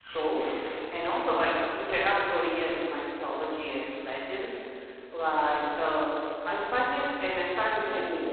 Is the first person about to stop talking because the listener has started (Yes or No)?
No